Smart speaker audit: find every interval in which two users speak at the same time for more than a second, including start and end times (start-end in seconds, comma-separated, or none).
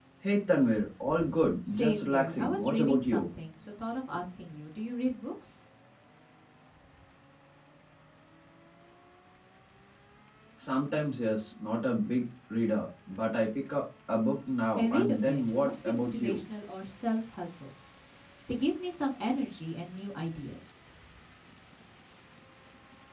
1.7-3.3, 14.8-16.4